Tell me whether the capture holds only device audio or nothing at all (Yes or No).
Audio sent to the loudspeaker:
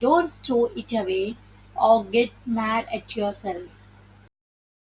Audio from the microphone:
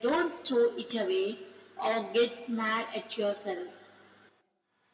Yes